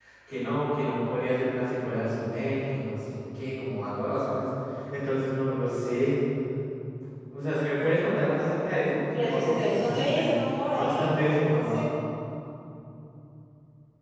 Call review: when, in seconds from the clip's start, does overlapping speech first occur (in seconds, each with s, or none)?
9.1 s